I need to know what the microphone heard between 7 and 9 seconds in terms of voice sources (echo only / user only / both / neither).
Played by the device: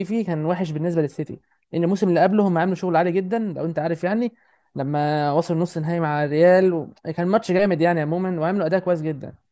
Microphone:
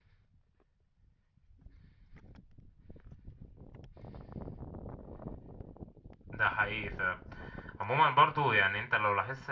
user only